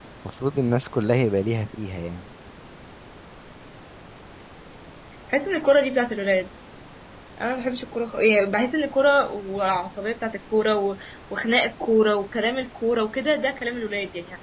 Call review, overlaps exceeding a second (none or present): none